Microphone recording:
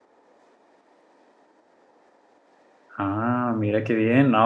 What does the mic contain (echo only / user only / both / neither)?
user only